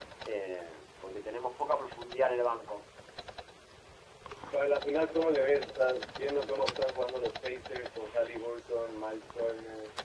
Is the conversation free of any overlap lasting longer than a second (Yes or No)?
Yes